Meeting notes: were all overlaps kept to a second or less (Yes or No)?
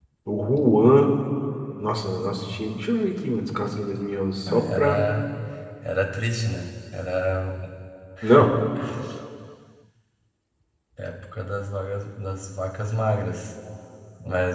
Yes